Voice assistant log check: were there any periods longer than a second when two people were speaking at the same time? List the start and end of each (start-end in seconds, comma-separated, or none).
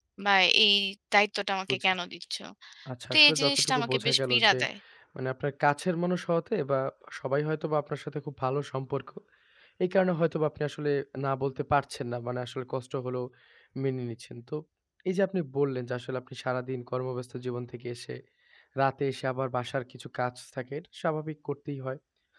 3.1-4.6